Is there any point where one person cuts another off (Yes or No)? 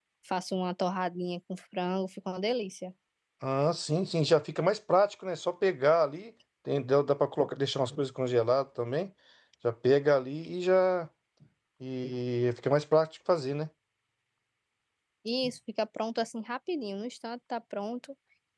No